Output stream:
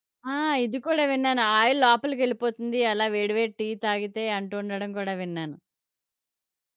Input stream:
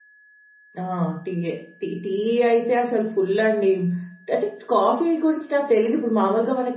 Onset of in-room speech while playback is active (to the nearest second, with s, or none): 1 s